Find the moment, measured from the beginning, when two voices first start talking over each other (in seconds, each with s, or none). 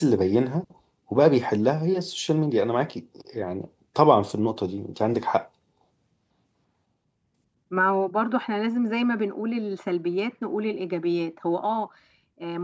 none